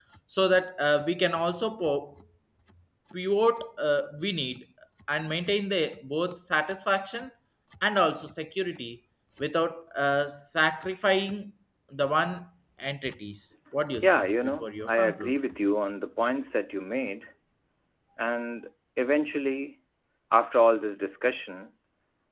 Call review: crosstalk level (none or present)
present